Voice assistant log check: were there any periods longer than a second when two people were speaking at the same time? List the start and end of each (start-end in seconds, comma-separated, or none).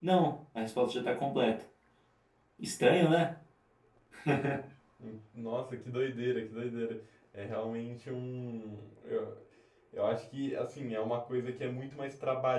none